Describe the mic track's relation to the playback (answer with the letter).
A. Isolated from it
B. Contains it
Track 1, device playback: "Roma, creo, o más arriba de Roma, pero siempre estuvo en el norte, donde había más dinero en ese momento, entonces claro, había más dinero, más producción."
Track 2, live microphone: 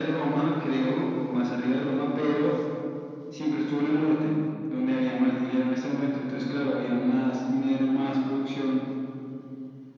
B